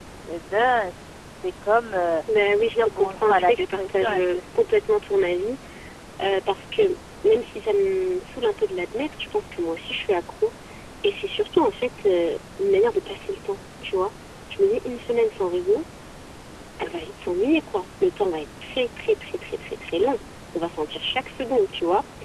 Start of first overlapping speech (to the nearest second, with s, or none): 3 s